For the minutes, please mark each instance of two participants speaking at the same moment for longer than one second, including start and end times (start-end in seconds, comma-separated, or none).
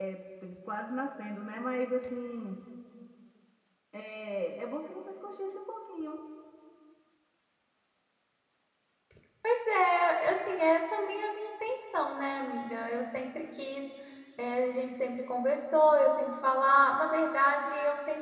none